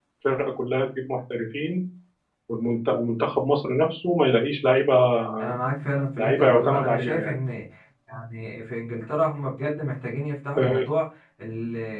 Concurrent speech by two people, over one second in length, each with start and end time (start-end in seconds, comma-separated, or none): 6.2-7.4